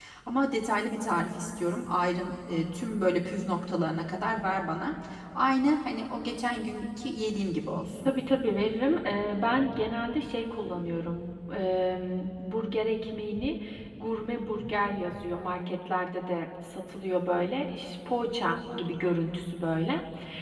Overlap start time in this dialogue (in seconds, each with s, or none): none